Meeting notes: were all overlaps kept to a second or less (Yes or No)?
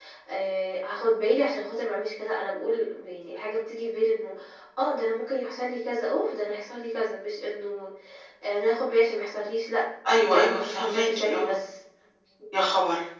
No